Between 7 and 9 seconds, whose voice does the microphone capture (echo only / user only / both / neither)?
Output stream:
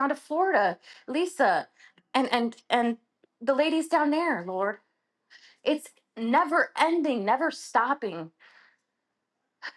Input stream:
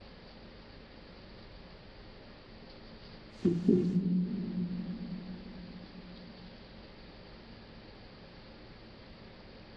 neither